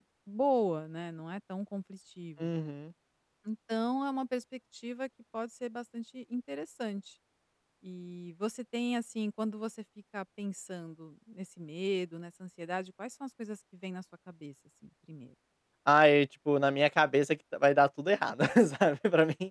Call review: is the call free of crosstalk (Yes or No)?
Yes